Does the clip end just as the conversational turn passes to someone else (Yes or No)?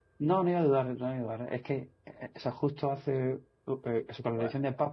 No